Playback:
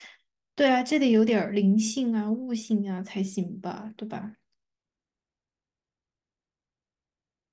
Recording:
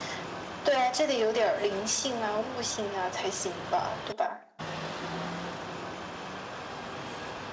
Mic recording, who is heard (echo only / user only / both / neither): echo only